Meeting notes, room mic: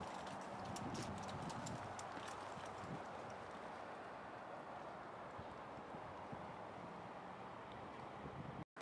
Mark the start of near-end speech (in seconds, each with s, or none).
none